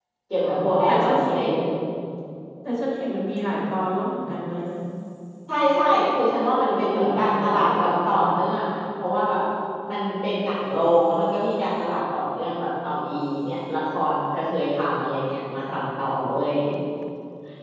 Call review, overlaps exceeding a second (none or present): present